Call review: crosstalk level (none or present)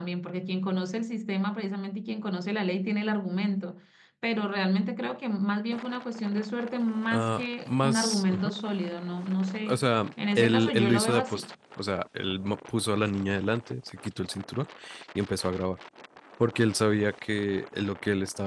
present